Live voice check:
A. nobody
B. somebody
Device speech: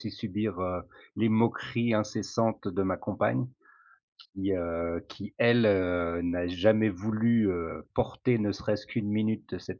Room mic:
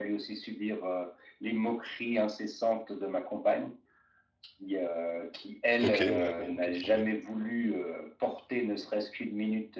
B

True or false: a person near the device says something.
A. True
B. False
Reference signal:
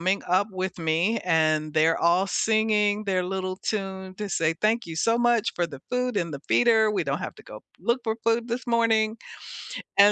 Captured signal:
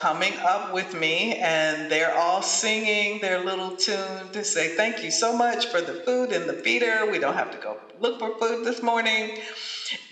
B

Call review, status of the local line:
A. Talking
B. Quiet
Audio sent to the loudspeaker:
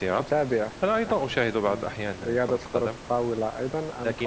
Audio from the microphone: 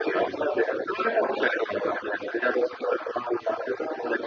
B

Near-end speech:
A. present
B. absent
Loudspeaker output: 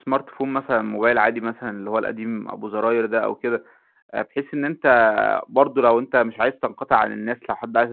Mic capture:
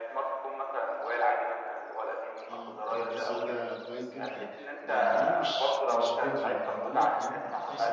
A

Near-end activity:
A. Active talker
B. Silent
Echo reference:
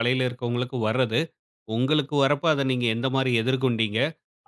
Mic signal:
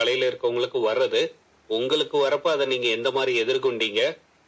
B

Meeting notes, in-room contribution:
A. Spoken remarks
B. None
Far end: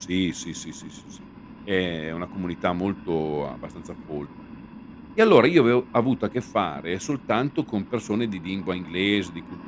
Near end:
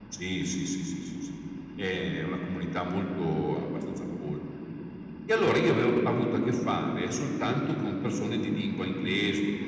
B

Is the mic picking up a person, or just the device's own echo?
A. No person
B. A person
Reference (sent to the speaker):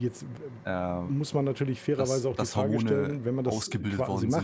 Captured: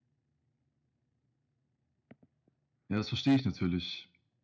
B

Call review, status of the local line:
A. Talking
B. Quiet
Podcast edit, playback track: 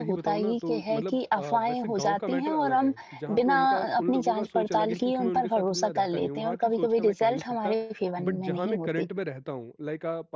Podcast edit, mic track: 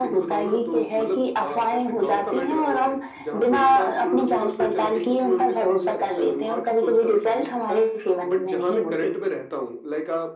B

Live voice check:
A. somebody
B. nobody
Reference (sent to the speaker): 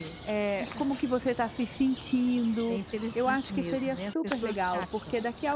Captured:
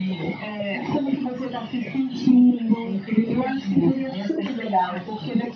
B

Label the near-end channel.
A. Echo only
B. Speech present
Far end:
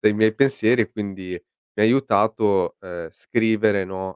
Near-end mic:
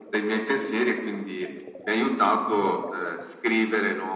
A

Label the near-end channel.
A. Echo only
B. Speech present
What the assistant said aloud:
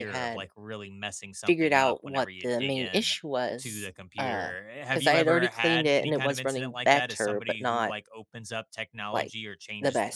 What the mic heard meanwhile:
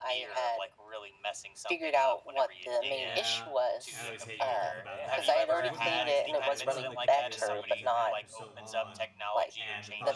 B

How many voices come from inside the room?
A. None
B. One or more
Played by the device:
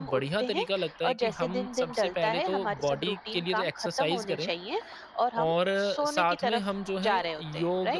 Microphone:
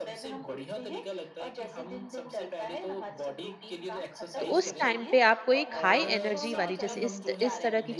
B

